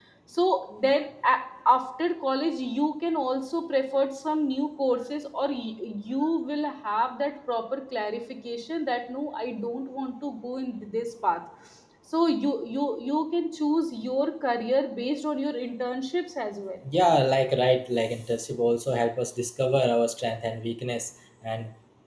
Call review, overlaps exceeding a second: none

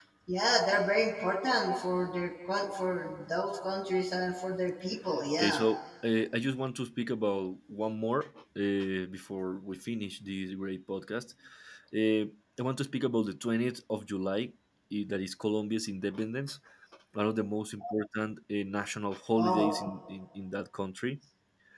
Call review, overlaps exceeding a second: none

